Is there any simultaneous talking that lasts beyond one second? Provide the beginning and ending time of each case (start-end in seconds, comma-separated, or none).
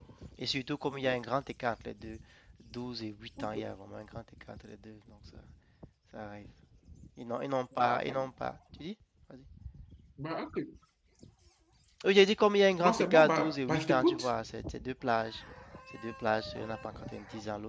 12.8-14.3